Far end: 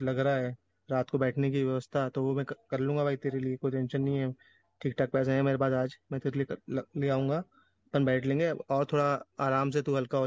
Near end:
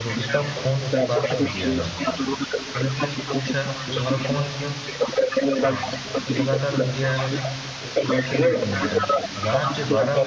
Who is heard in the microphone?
both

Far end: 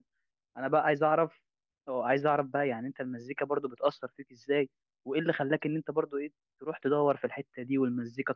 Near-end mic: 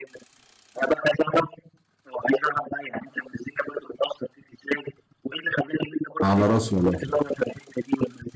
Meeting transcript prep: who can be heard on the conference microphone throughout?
both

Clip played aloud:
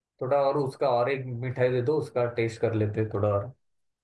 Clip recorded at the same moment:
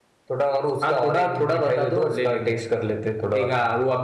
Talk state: both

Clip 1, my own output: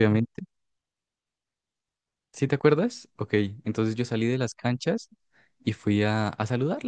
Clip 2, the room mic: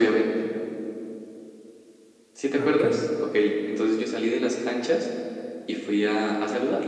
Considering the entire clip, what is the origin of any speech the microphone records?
both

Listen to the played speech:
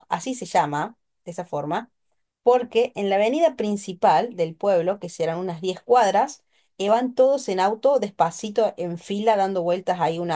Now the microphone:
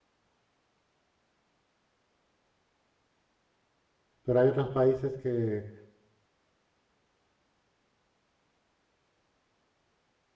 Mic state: user only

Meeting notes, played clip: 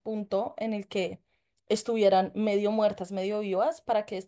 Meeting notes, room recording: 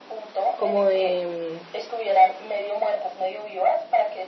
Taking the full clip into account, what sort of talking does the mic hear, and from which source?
both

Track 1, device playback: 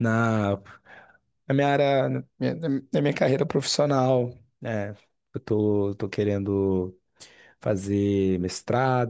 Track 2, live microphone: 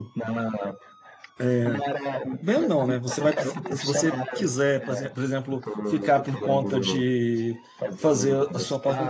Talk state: both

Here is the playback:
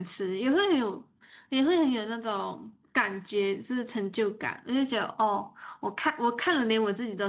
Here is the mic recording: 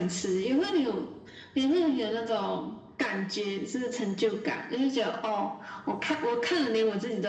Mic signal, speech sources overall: echo only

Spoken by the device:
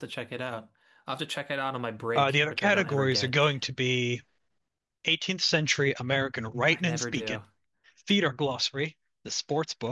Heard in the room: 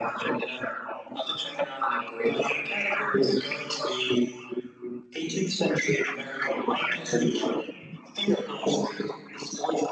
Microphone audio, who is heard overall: echo only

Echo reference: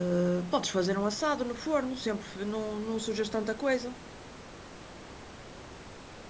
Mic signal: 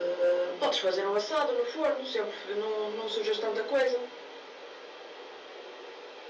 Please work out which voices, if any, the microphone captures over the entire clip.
echo only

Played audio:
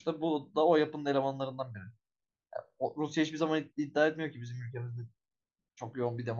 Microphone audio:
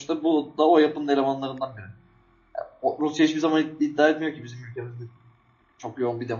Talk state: echo only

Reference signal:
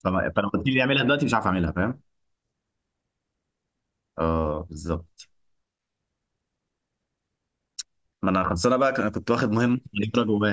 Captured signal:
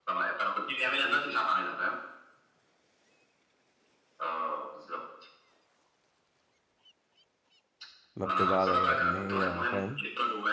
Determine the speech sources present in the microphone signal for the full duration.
both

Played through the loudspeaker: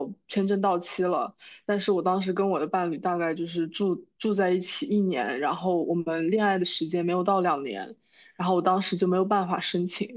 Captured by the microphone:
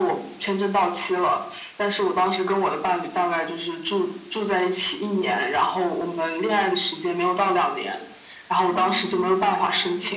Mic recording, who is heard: both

